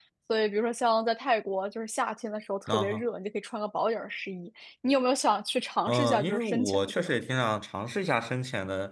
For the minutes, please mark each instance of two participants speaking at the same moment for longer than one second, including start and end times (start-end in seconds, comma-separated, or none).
5.9-7.2